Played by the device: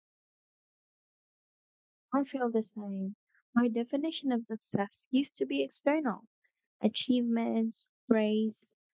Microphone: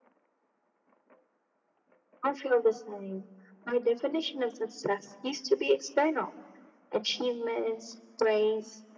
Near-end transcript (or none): none